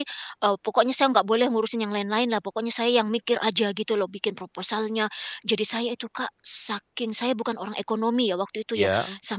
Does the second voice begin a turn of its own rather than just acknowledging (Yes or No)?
No